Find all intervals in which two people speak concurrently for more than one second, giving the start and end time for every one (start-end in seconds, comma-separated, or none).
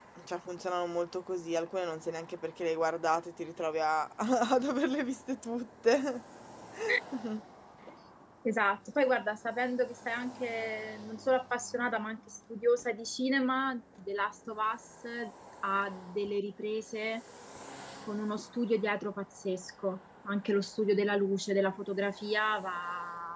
none